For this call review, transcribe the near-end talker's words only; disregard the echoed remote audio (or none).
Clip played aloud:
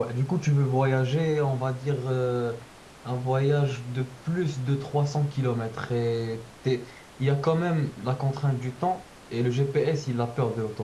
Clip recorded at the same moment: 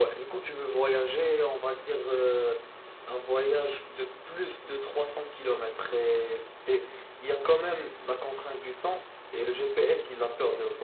none